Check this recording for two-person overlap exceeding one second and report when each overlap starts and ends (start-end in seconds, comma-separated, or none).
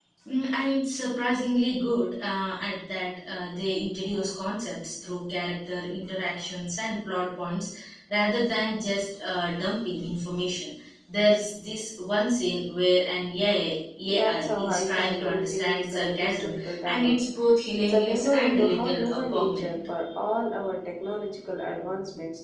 14.1-17.3, 17.8-19.7